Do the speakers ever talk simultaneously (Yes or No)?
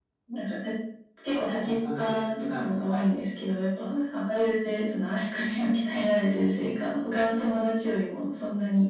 Yes